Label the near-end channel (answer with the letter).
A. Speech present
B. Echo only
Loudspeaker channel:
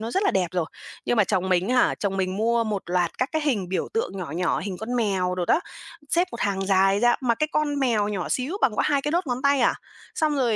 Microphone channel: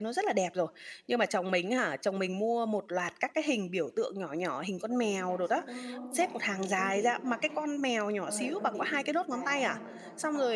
A